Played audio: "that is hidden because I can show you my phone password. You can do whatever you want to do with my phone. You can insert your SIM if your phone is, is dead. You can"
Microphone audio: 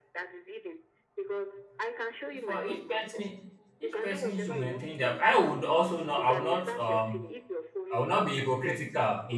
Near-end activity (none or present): present